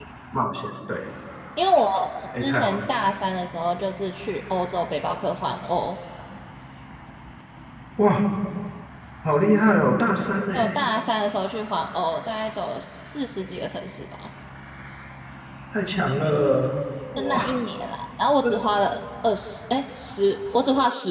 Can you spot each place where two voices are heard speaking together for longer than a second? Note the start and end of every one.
none

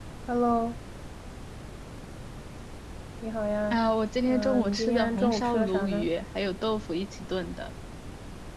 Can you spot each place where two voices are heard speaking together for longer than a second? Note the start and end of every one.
4.2-6.1

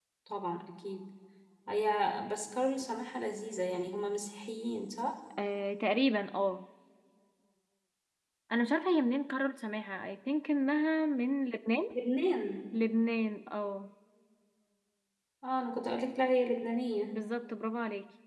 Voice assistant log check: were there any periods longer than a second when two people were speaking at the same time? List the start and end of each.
none

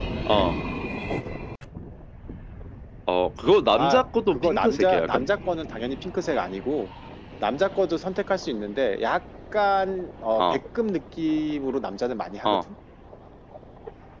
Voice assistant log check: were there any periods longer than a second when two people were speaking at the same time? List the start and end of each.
3.7-5.2

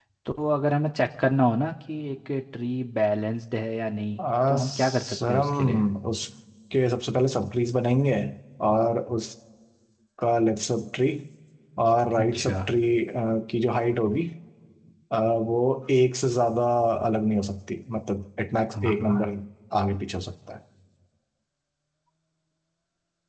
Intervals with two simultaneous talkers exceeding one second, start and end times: 4.5-5.8

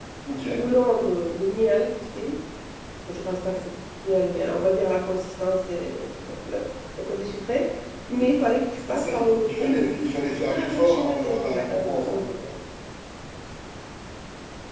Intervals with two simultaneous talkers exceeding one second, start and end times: 8.9-12.3

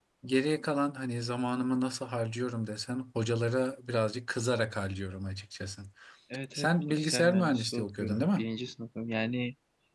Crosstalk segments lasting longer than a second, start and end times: 6.5-8.4

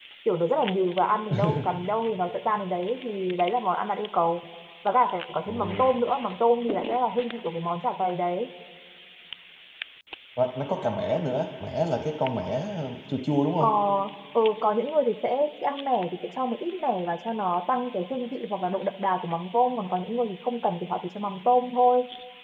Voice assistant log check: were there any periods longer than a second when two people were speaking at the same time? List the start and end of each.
none

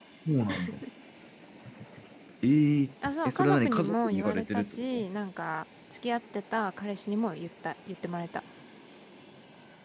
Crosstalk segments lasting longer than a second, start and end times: 3.2-4.8

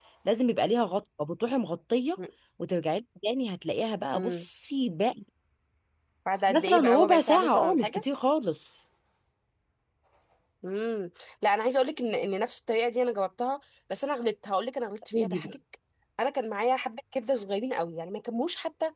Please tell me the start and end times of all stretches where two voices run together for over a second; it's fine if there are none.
6.5-8.0

